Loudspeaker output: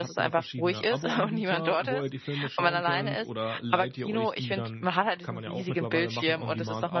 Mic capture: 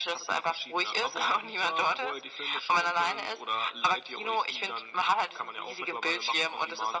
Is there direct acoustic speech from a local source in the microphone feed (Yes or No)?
No